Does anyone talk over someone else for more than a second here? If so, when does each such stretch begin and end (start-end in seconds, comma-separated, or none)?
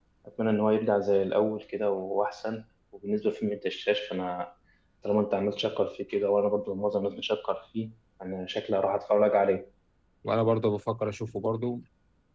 none